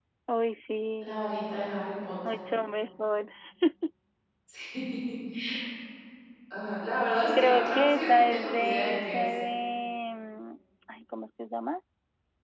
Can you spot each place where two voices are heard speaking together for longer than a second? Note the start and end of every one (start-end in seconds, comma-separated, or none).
7.4-9.3